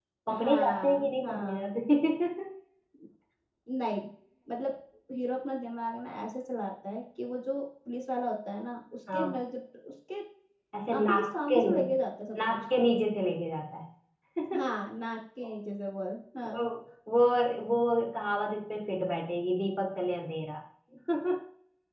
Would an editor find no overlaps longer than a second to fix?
No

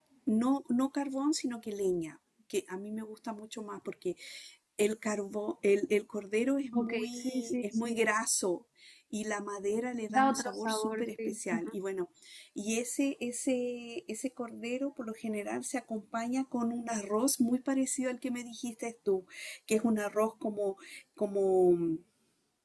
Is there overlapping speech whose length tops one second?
Yes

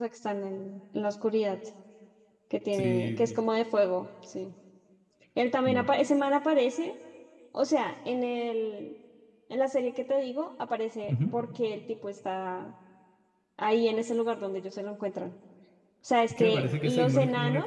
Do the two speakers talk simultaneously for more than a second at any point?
Yes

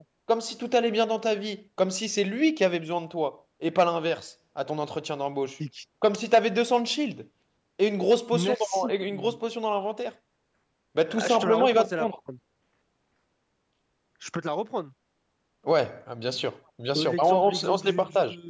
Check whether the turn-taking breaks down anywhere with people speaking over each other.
Yes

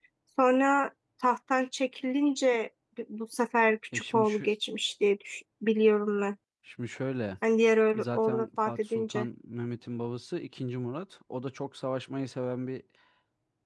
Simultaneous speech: Yes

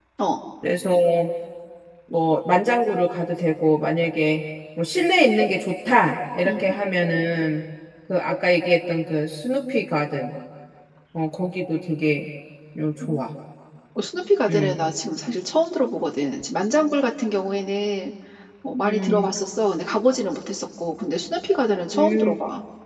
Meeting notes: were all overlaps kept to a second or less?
Yes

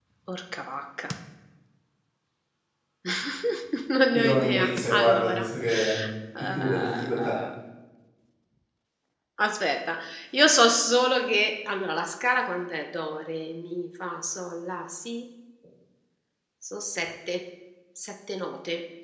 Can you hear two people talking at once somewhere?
Yes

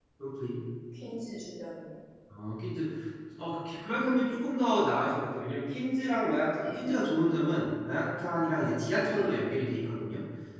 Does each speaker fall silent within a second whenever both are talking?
Yes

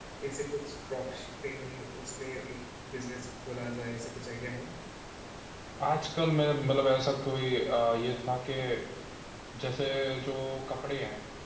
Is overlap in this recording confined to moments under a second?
Yes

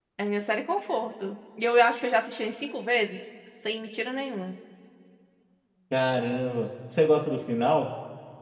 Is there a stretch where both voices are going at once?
No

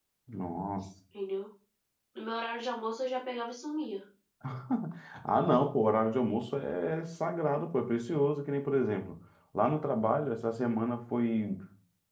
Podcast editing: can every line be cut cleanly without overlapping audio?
Yes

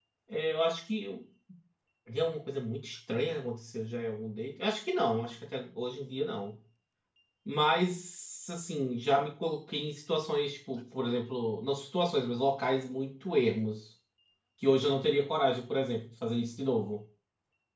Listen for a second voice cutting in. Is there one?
No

